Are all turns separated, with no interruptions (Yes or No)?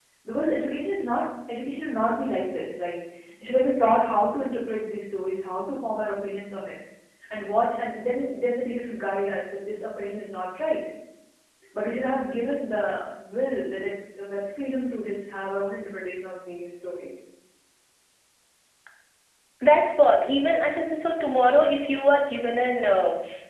Yes